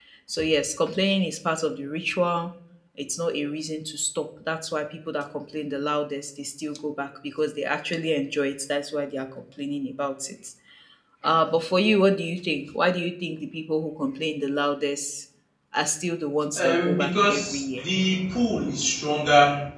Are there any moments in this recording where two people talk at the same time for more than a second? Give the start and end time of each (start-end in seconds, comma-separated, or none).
16.6-17.9